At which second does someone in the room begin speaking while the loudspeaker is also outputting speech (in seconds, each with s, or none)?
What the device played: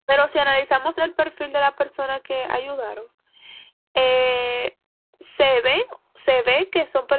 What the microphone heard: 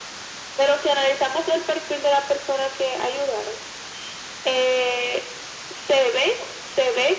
none